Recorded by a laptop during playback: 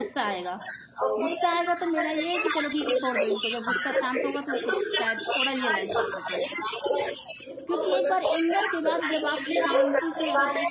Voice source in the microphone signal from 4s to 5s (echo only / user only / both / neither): both